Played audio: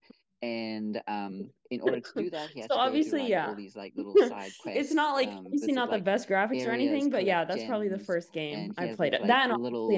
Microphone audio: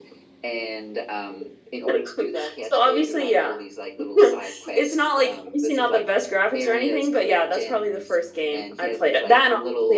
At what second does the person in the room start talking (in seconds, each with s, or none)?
none